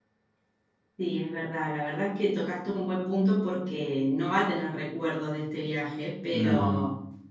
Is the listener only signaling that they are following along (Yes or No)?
Yes